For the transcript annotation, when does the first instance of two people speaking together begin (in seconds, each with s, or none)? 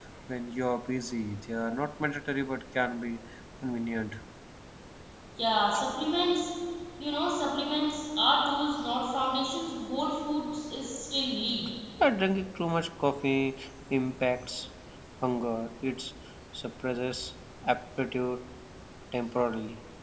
none